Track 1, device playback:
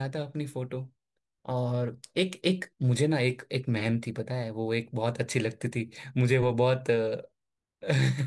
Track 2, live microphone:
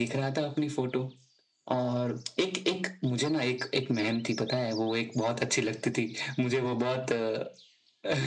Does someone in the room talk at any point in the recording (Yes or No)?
No